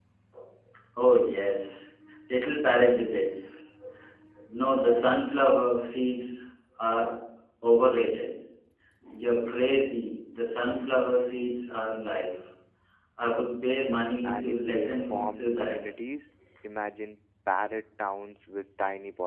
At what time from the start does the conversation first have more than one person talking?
14 s

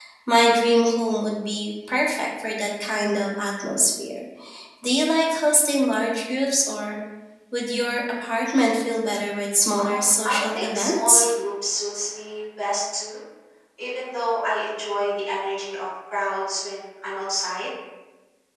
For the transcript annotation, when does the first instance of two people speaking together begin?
10 s

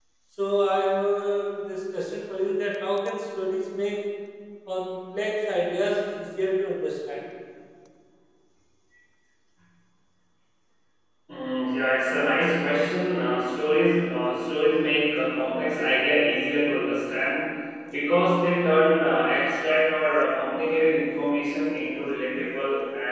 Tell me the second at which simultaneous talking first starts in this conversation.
none

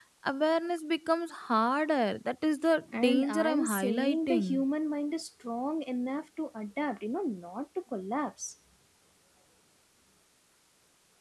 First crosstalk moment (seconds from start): 3 s

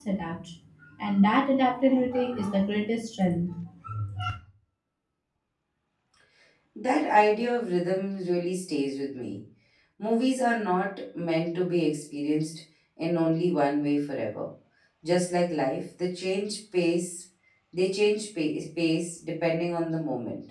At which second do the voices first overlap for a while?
none

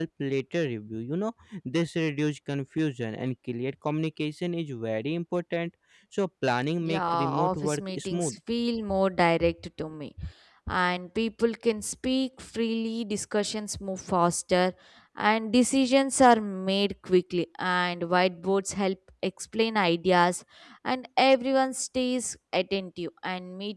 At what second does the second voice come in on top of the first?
7 s

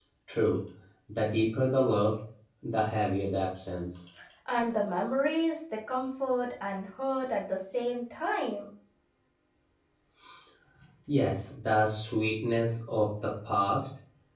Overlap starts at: none

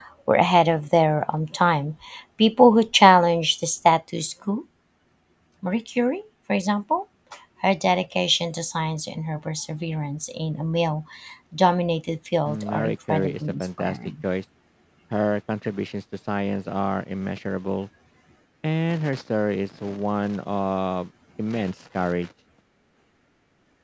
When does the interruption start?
12 s

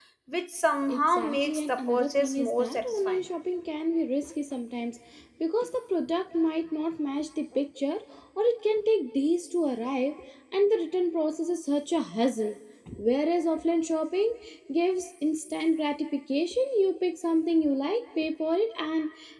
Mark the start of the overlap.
1 s

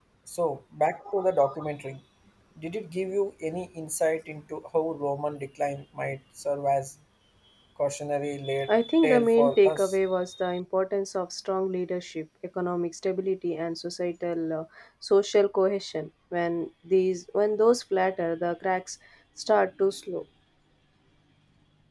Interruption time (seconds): 9 s

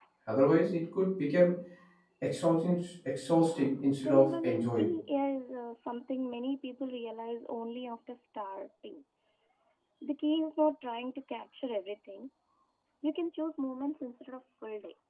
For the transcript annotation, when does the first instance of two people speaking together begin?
3 s

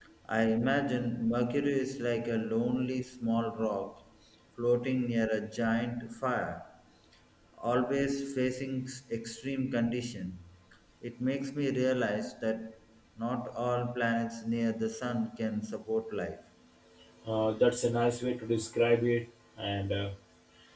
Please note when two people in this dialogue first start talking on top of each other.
none

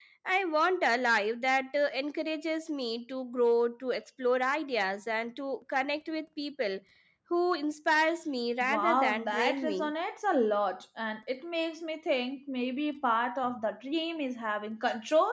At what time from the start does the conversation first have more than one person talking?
9 s

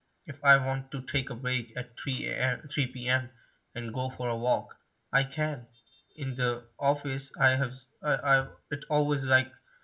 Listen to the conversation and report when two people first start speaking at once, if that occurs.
none

